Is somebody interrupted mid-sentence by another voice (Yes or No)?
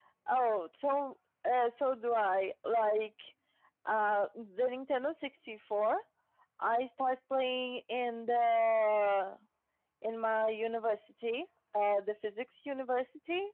No